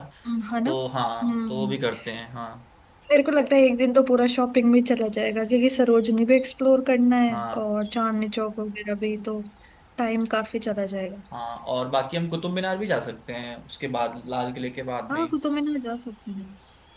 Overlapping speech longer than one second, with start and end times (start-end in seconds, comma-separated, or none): none